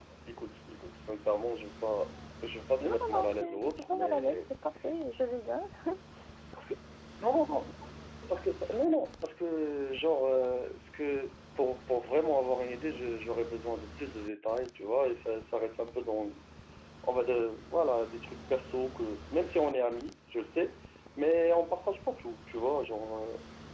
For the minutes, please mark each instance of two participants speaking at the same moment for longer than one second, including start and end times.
2.8-4.4

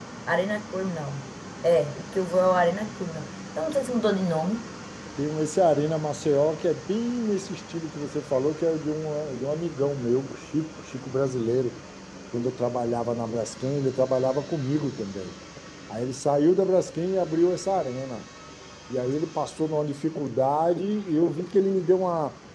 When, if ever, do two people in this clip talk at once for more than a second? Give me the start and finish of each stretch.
none

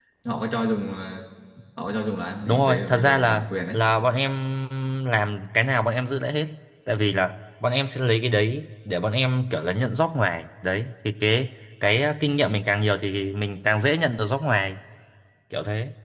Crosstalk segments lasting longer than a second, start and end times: 2.5-3.8

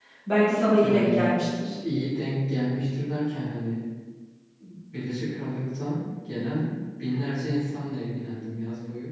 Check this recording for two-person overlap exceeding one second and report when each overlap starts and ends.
none

